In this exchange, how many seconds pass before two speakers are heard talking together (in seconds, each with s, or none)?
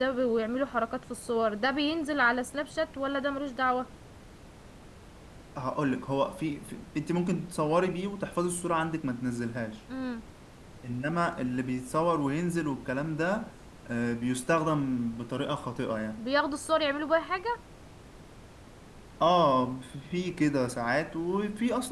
none